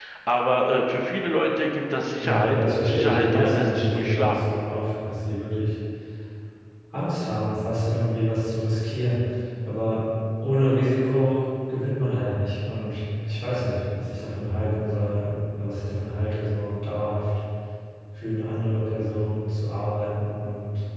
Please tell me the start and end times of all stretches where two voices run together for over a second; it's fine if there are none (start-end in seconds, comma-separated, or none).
2.2-4.3